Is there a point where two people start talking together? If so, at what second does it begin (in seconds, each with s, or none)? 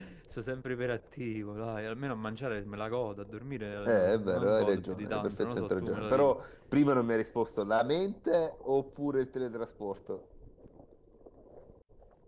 3.9 s